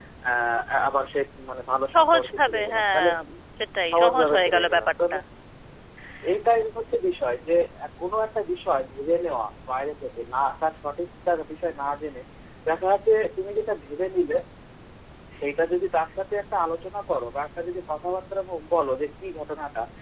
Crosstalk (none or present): present